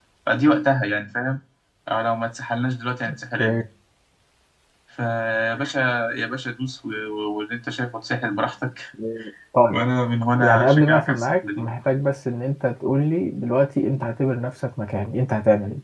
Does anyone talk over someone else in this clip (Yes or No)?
Yes